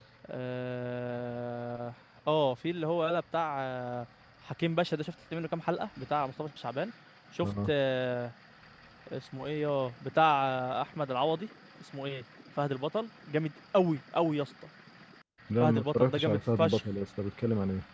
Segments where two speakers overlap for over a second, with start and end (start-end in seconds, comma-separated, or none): 15.6-16.8